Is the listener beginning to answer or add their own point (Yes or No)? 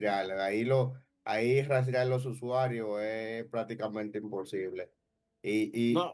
No